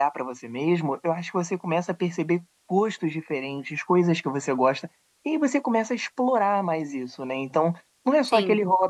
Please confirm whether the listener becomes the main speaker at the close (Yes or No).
No